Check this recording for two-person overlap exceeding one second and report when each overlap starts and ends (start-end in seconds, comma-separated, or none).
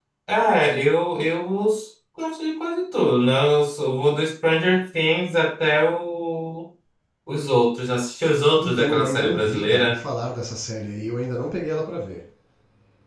8.6-10.0